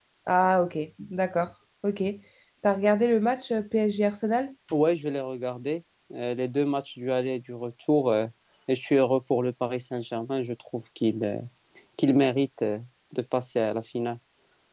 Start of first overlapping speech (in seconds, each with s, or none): none